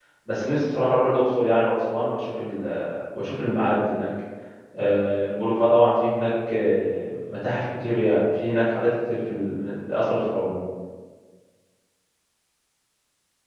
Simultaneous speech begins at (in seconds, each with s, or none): none